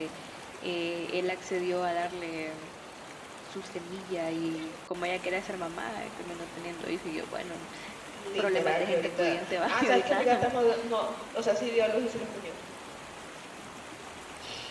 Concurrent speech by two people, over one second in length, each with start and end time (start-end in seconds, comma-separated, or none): 8.4-10.3